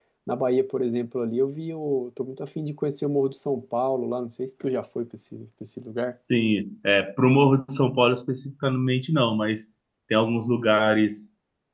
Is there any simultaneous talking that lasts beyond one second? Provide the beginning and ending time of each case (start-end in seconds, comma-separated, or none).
none